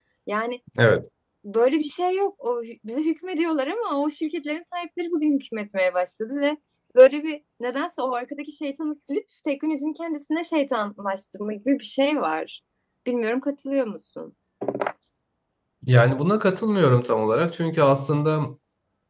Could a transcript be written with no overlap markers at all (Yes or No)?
Yes